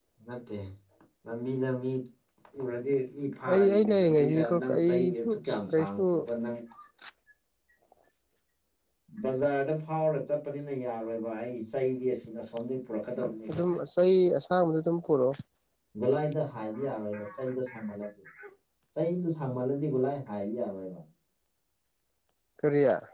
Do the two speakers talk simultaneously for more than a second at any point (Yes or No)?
Yes